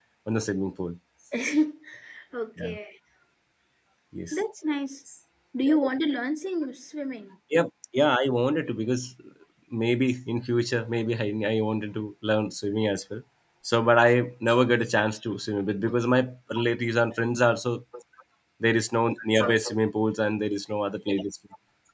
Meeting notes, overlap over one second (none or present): none